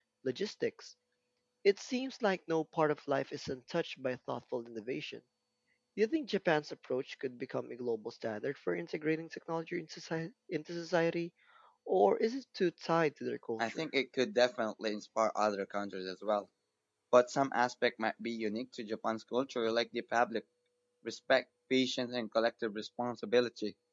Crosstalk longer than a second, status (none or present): none